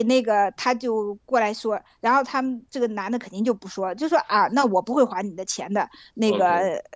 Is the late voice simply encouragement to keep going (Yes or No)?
Yes